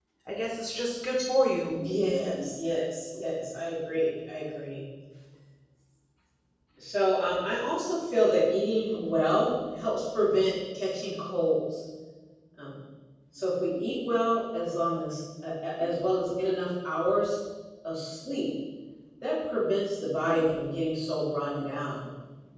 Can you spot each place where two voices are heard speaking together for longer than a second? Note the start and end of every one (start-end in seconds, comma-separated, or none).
none